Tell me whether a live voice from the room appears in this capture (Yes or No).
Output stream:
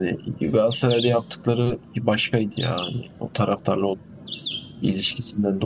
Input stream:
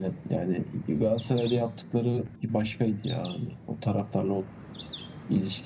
No